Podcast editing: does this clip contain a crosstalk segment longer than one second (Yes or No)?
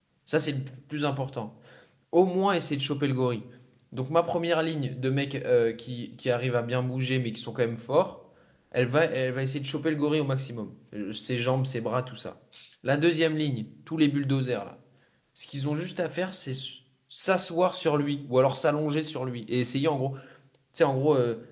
No